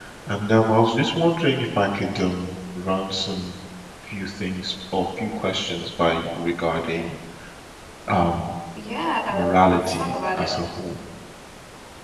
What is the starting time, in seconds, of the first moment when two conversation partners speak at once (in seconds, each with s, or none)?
9.3 s